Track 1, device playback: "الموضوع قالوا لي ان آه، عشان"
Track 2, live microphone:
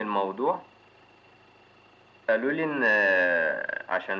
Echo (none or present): present